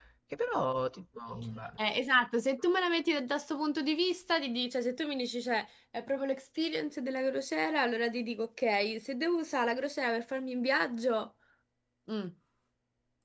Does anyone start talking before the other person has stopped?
No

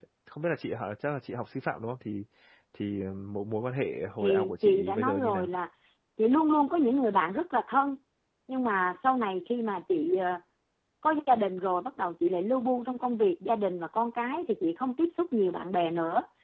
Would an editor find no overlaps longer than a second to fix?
No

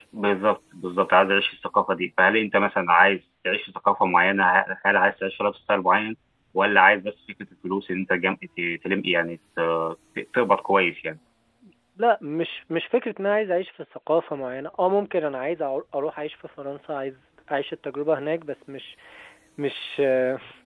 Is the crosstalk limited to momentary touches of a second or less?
Yes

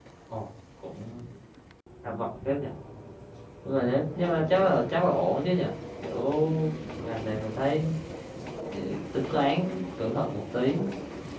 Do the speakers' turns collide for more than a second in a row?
No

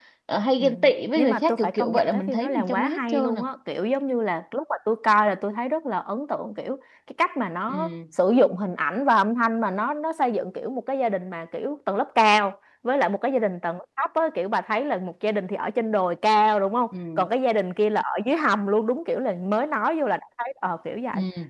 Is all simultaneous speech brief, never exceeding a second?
No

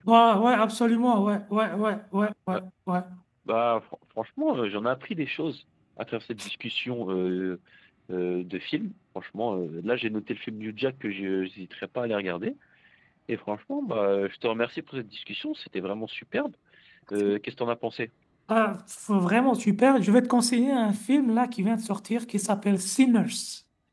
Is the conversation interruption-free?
Yes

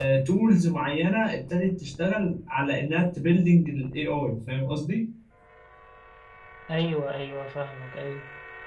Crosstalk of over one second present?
No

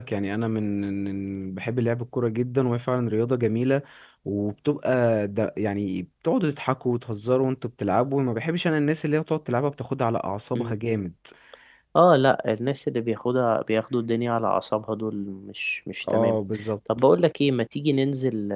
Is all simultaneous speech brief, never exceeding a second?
Yes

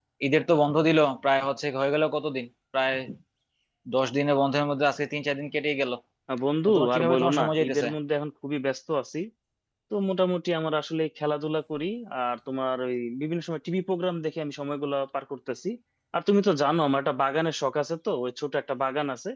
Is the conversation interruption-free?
No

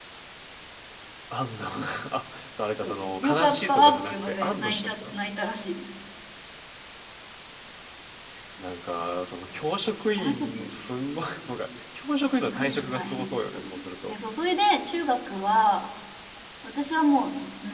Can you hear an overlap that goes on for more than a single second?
Yes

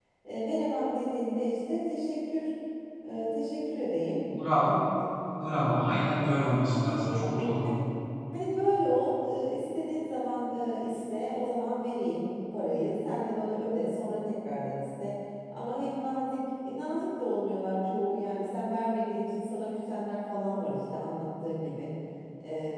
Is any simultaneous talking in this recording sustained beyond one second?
Yes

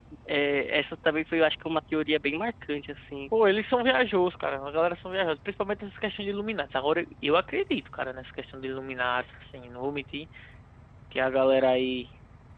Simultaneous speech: No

